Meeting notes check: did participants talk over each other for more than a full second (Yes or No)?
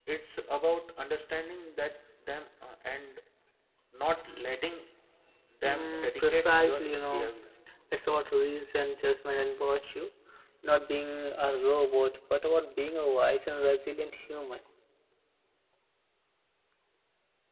Yes